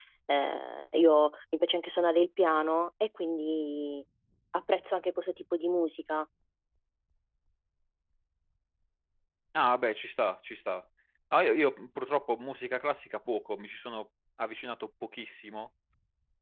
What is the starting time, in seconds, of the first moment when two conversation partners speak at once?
none

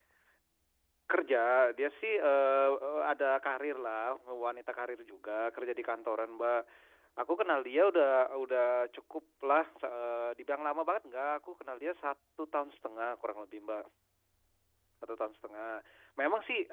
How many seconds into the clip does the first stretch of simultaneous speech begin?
none

